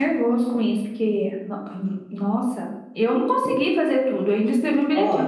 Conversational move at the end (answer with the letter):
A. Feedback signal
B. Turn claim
A